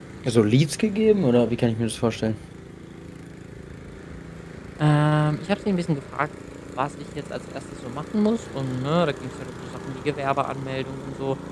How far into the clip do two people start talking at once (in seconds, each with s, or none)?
none